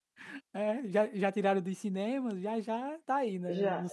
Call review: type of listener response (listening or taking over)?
taking over